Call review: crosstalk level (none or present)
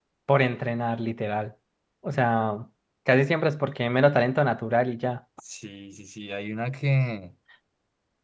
none